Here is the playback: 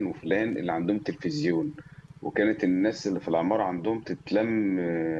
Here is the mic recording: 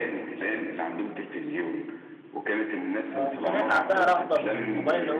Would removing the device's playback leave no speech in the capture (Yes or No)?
No